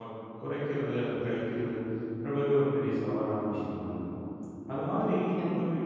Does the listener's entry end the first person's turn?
No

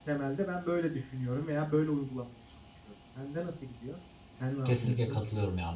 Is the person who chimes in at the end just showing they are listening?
No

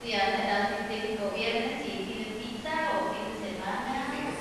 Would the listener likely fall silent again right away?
No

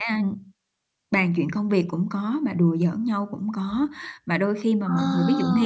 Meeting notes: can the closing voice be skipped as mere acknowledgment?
Yes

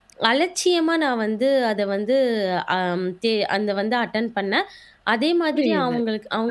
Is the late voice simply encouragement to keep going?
No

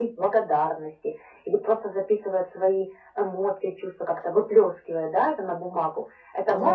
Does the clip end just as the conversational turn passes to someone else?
Yes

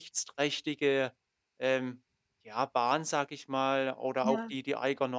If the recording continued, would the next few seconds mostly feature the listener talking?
No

